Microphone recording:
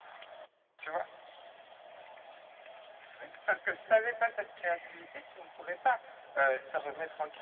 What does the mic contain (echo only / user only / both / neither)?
echo only